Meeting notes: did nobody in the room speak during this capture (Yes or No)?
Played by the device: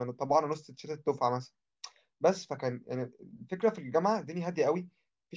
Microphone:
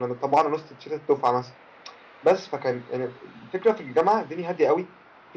Yes